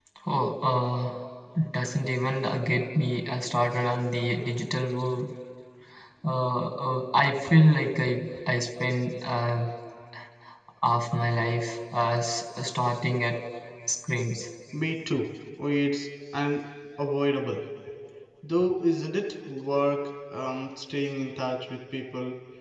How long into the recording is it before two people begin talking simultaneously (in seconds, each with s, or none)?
none